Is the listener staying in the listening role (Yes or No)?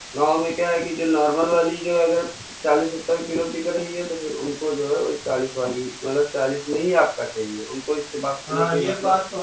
No